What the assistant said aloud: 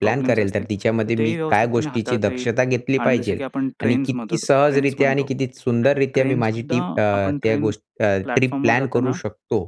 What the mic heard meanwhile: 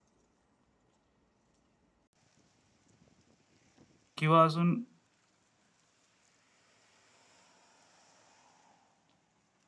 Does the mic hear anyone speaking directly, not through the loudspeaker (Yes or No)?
Yes